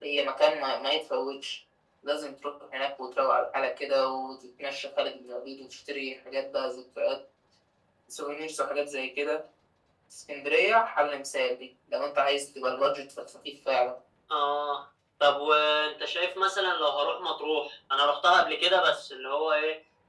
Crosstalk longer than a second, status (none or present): none